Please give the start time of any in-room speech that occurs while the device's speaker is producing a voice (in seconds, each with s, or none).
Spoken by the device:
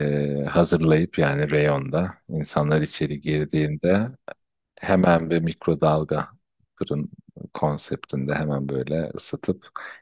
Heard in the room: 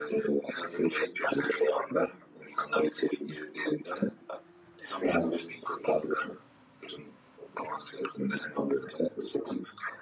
none